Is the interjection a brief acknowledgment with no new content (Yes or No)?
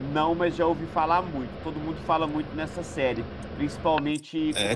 Yes